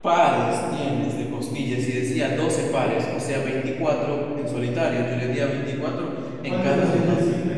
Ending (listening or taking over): taking over